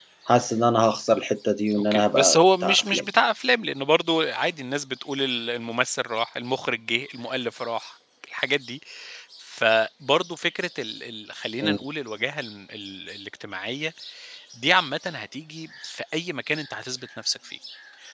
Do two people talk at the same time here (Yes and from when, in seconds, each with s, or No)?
Yes, from 1.7 s